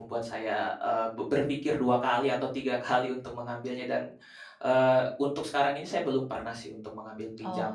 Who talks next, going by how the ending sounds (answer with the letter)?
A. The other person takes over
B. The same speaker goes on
A